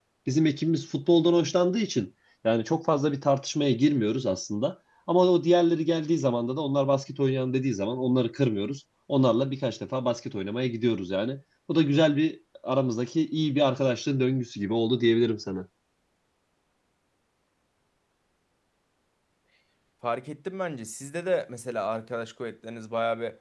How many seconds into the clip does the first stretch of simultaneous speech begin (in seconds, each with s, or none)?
none